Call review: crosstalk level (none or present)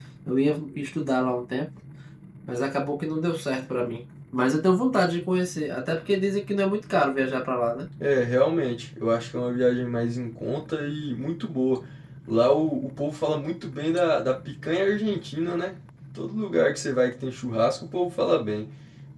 none